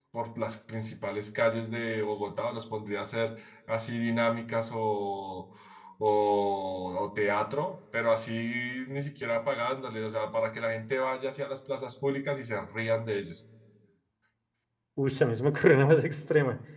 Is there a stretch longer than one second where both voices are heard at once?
No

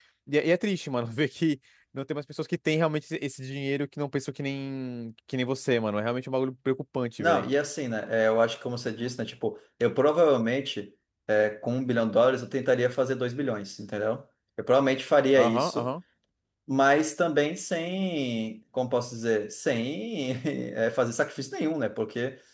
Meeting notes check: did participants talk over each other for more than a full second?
No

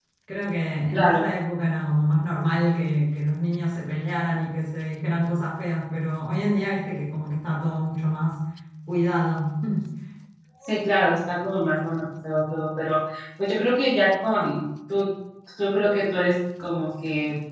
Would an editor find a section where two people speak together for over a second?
No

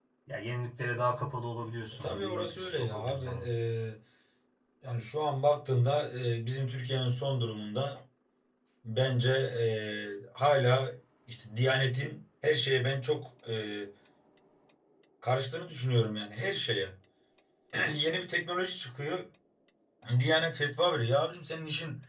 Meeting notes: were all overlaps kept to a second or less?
No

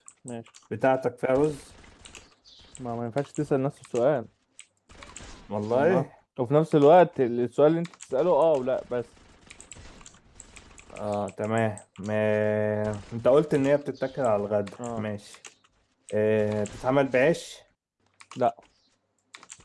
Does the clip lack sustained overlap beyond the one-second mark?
Yes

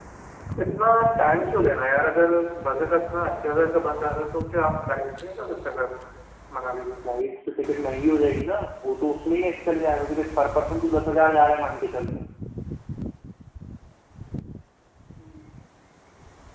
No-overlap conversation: Yes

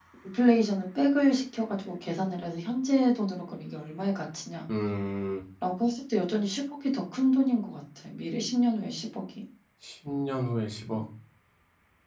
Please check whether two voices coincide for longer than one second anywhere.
No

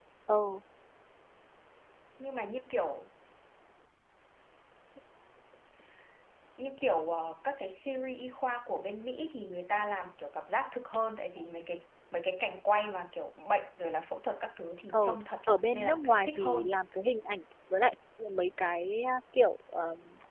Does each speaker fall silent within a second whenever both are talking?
No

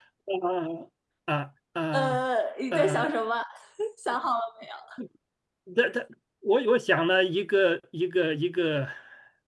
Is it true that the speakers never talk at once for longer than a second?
Yes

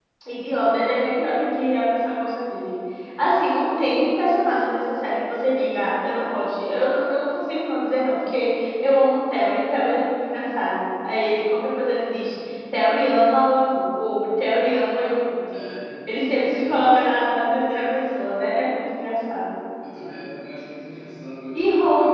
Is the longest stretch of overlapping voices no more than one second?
Yes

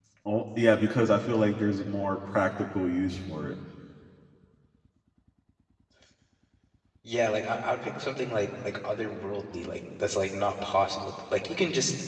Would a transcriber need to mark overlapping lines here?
No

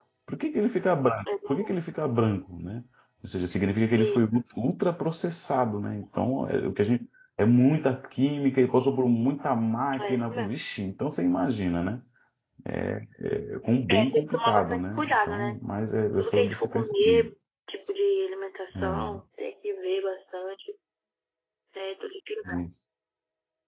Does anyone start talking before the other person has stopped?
Yes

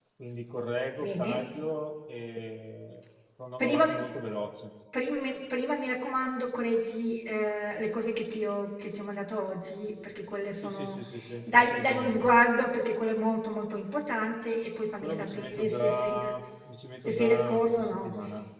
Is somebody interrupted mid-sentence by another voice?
Yes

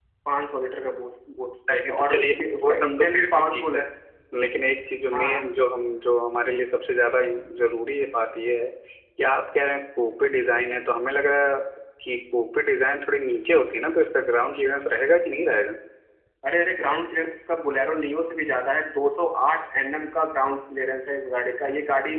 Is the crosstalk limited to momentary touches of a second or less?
No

